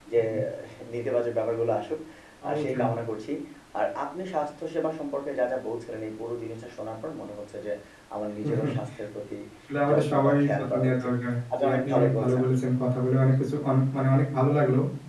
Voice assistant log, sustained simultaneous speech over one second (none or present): present